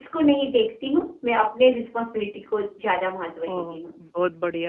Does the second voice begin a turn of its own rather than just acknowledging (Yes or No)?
Yes